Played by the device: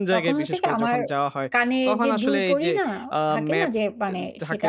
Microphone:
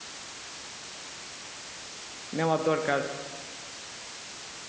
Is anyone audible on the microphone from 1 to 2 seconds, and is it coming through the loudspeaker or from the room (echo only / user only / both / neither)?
neither